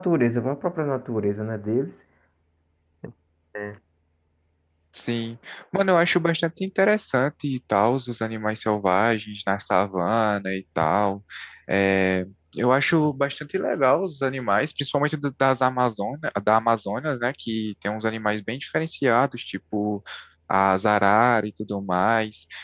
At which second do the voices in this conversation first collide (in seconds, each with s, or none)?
none